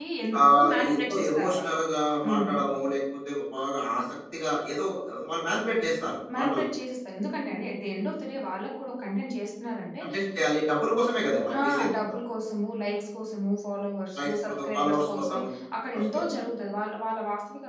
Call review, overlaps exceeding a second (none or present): present